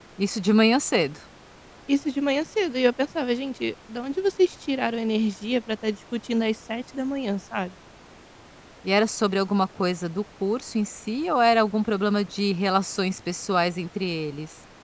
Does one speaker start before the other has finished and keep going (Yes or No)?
No